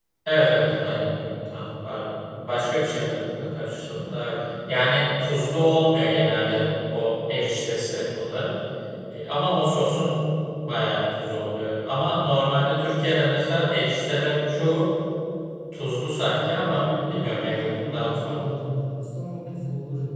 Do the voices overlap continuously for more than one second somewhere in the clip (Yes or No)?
Yes